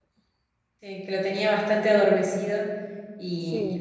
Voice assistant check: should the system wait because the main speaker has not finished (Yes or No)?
Yes